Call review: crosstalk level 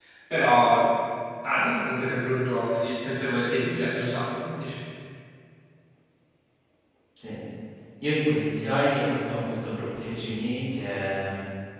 none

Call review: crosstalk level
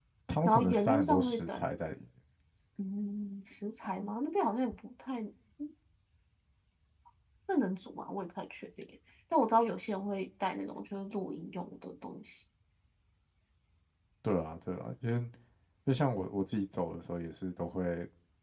present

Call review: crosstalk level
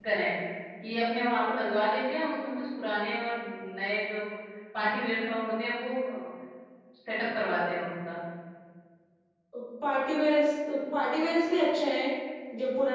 none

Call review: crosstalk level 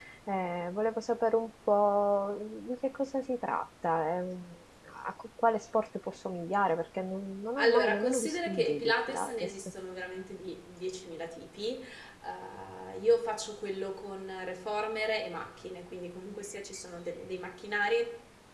present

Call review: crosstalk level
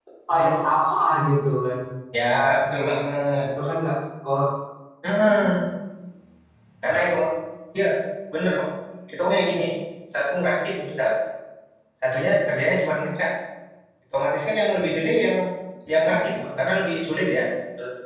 none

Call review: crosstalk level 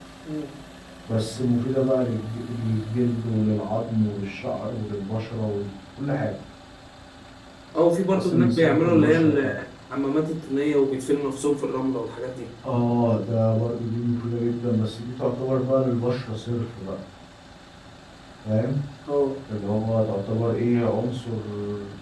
present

